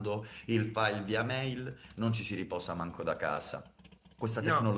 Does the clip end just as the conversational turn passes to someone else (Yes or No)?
No